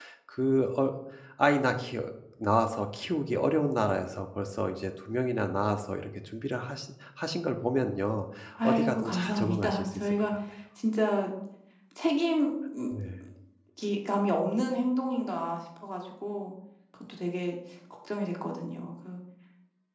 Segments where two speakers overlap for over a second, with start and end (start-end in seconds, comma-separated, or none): 8.6-10.1